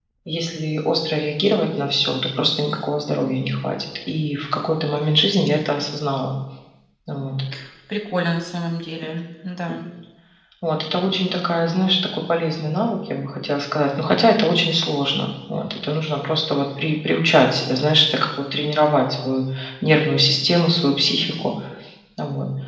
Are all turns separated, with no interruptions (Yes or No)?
Yes